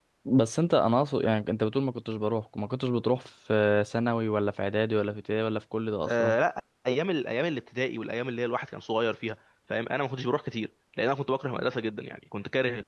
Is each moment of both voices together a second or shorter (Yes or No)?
Yes